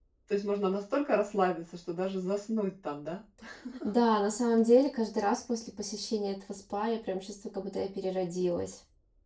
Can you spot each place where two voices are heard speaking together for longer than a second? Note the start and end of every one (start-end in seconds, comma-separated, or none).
none